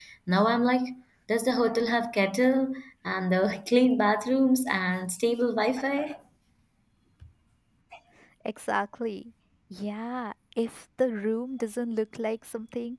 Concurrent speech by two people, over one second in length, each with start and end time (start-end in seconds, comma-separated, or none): none